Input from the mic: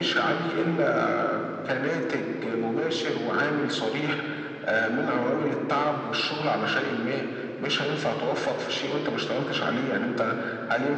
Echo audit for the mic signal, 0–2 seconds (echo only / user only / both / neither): echo only